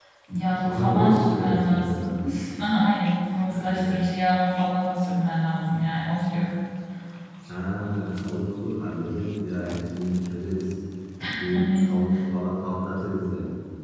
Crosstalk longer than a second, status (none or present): present